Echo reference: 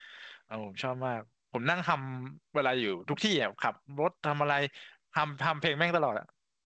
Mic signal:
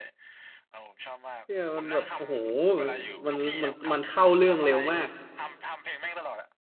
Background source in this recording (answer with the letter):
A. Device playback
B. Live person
A